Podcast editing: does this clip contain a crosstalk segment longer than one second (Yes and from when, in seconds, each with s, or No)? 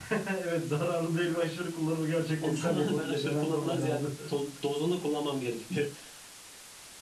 Yes, from 2.4 s